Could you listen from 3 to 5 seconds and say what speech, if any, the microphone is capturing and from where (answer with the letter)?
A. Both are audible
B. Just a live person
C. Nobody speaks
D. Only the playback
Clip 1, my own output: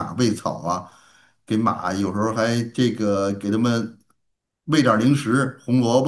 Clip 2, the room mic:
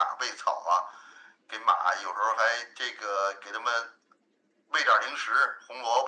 D